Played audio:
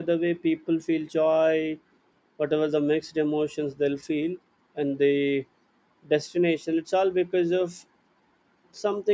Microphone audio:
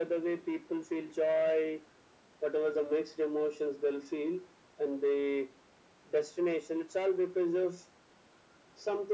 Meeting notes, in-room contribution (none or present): none